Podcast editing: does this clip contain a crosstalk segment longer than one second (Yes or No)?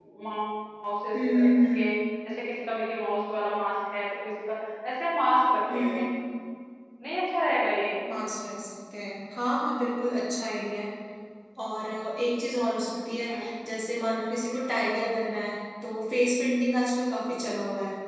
No